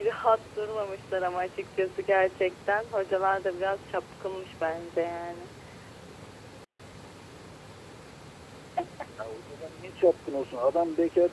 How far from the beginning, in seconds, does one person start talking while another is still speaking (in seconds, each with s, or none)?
none